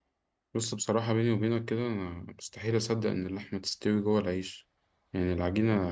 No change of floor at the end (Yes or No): Yes